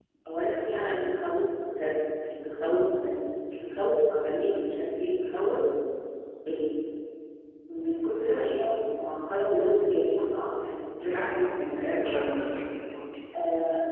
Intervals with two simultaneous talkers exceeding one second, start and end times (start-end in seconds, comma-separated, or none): 11.0-12.5